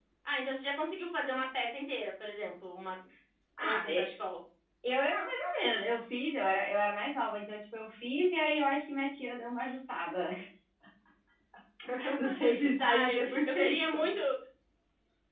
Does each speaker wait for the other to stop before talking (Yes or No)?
No